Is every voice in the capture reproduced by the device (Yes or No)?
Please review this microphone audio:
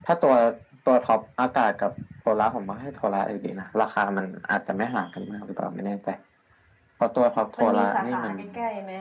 No